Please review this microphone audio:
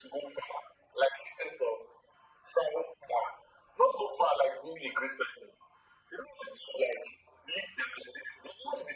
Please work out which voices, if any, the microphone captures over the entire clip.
echo only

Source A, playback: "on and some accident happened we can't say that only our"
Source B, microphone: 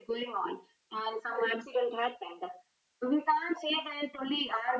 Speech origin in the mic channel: echo only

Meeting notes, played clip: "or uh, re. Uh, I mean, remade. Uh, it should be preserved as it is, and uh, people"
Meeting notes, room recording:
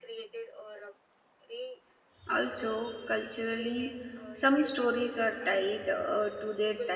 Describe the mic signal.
both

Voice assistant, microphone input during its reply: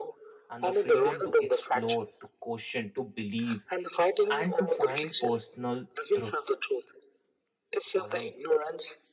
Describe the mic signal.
both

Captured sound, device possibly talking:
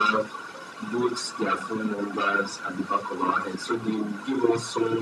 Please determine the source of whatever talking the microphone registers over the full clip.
echo only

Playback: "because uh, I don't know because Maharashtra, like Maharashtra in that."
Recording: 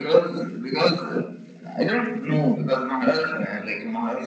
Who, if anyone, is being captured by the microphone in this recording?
echo only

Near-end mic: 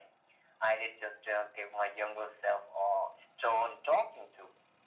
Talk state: echo only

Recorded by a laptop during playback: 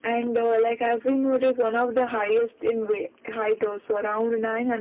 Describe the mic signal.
echo only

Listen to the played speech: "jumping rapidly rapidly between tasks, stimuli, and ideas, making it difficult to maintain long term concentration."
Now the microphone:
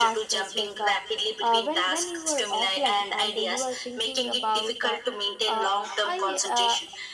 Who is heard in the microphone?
both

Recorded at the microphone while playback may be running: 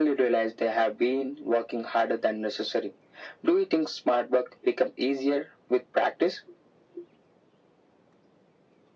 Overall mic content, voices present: echo only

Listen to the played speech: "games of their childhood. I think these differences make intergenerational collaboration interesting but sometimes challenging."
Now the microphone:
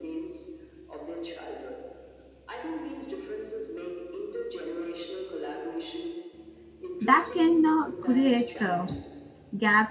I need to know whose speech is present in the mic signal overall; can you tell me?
both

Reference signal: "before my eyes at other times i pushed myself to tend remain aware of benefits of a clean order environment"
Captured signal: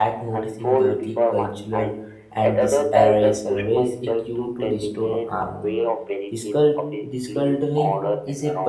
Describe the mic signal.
both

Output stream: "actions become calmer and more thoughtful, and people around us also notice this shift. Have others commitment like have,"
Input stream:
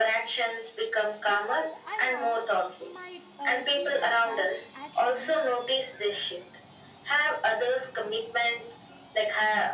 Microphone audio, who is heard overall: both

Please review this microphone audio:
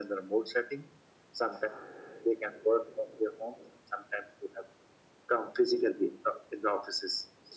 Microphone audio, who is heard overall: echo only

